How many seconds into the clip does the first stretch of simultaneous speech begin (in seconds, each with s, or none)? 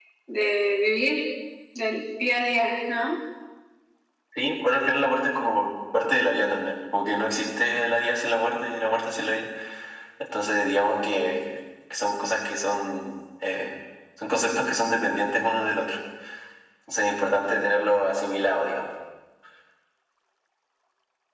none